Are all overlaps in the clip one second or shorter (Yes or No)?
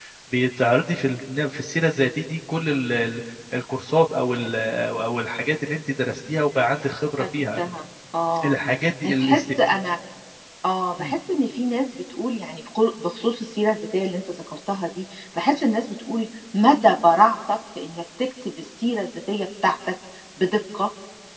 Yes